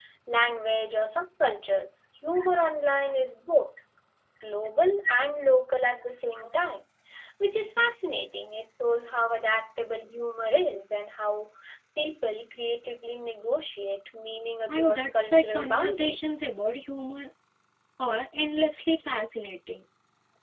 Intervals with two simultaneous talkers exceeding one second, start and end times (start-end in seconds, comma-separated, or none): 14.7-16.3